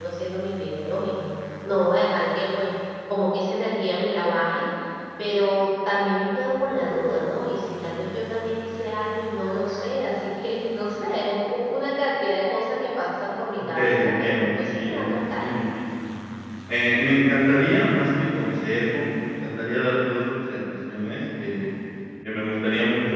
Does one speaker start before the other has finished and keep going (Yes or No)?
Yes